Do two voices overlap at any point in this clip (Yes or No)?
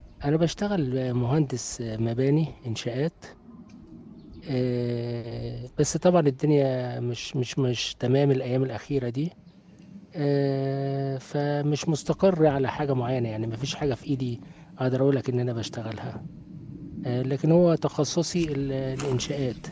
No